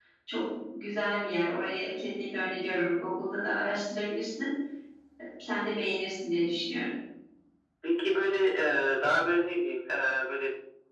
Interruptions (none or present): none